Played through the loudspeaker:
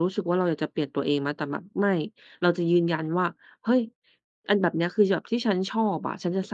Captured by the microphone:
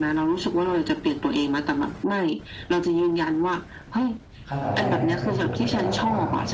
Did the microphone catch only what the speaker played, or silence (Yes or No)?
No